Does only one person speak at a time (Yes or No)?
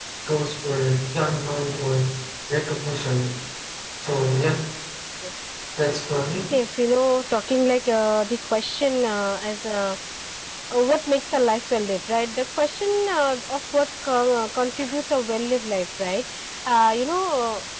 Yes